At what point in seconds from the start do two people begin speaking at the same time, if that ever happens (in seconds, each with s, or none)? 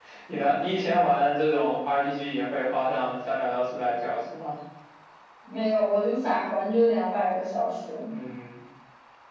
none